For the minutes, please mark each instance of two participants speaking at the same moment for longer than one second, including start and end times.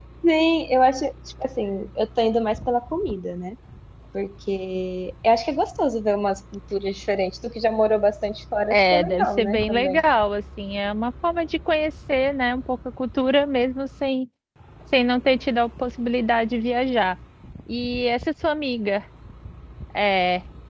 8.7-10.0

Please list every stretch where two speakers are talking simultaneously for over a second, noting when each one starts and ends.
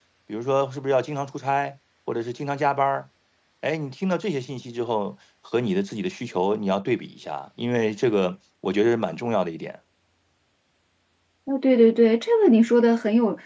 none

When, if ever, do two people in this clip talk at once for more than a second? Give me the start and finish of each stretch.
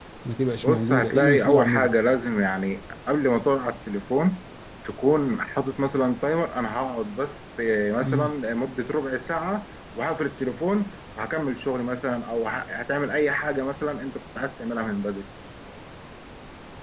0.6-1.9

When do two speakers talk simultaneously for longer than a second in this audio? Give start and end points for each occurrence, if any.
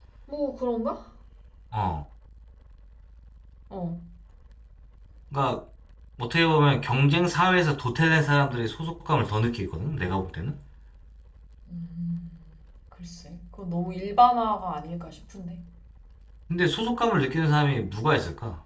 none

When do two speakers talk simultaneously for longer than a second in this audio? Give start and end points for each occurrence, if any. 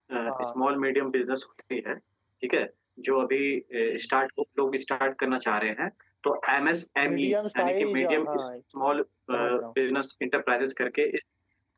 7.1-8.5

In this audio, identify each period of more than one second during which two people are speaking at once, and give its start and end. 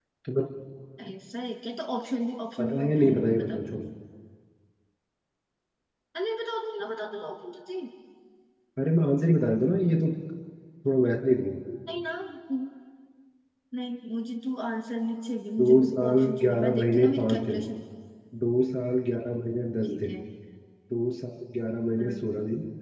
2.6-3.8, 15.6-17.6

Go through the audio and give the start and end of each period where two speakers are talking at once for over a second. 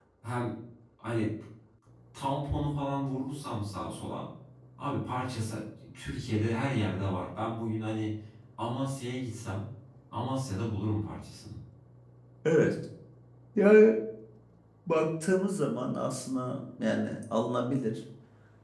none

